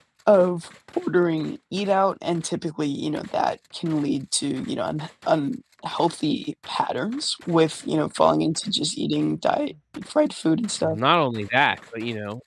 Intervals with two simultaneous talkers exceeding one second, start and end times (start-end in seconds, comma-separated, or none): none